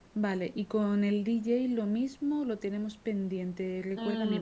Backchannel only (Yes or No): No